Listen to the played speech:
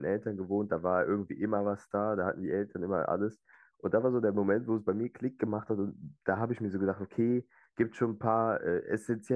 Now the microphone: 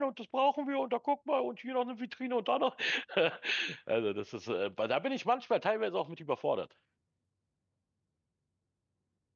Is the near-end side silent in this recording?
No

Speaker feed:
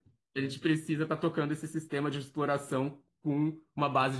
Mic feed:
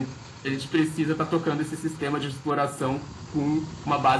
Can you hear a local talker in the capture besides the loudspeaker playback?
No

